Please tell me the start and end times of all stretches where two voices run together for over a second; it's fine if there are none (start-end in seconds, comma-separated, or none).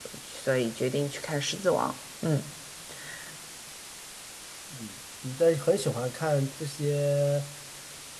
none